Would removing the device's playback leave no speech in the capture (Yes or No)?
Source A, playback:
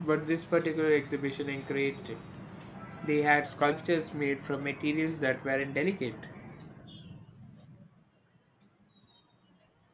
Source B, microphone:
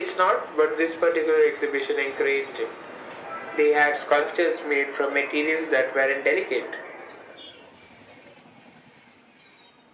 Yes